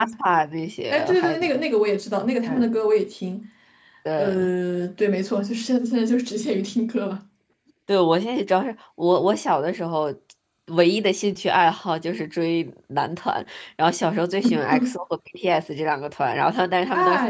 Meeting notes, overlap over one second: none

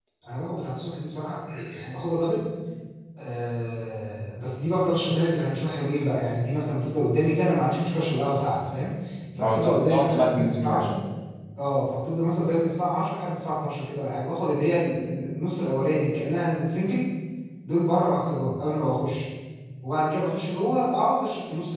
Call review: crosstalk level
present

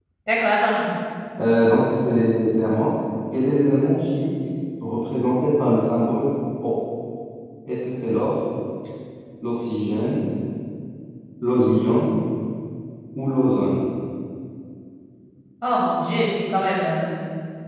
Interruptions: none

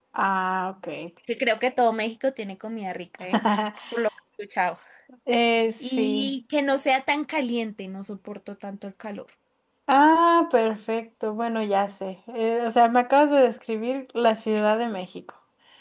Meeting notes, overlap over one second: none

